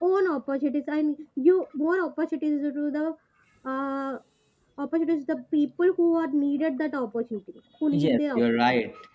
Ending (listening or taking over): taking over